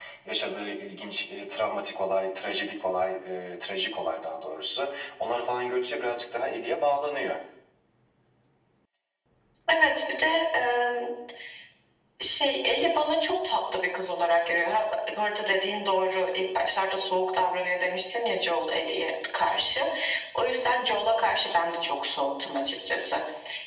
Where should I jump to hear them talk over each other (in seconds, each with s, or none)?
none